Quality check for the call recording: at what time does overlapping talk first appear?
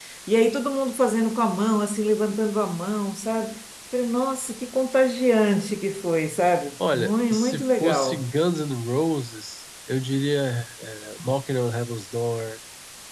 6.8 s

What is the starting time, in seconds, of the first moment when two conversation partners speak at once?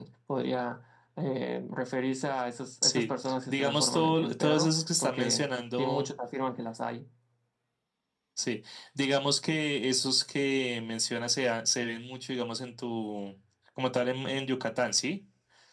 2.8 s

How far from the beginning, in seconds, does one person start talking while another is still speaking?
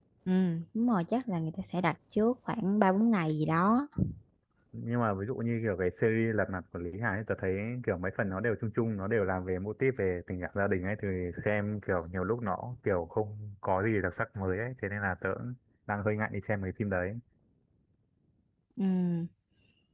none

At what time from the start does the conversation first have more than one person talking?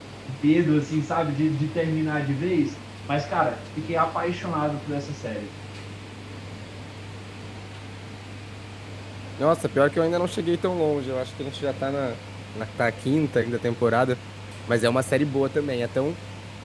none

